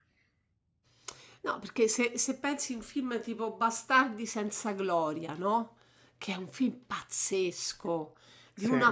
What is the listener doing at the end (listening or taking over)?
listening